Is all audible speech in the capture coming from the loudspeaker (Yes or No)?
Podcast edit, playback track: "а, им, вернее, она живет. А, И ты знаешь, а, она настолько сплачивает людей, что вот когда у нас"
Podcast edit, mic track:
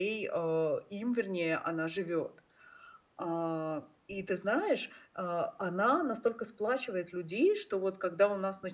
Yes